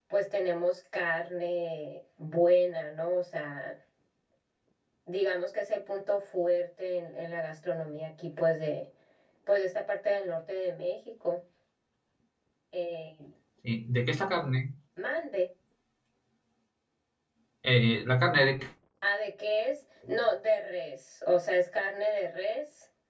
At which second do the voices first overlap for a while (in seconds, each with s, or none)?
none